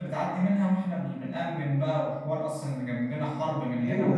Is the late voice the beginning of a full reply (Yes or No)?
Yes